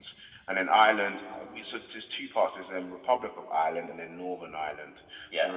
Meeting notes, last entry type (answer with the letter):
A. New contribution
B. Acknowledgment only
B